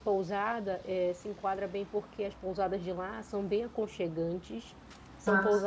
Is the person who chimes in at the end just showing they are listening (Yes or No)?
Yes